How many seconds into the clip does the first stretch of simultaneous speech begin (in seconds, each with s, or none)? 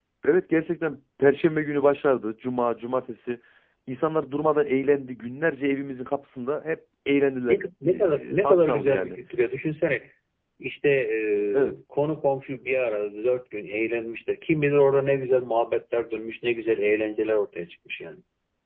7.5 s